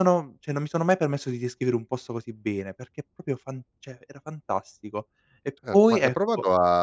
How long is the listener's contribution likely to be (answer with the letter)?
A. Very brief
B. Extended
B